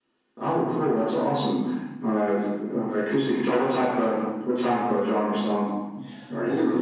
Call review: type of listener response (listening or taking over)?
taking over